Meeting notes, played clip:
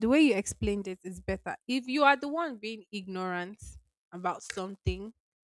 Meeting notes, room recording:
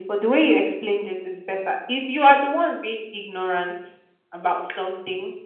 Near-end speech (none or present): none